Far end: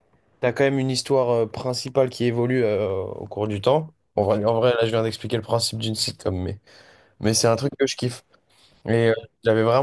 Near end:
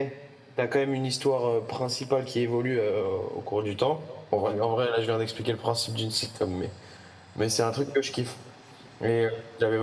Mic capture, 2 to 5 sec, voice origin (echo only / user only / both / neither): echo only